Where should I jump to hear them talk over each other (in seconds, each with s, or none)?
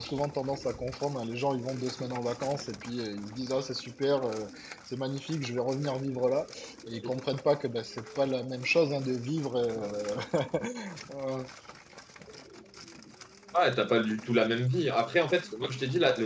none